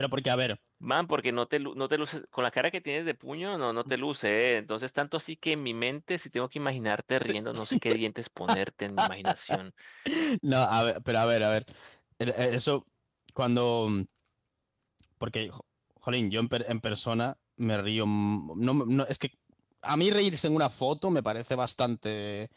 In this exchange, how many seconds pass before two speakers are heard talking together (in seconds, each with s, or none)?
none